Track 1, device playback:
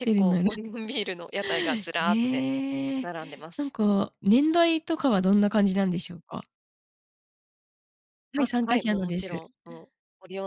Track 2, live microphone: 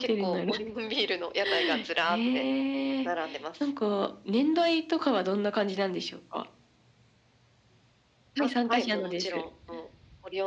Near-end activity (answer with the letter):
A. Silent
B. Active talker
A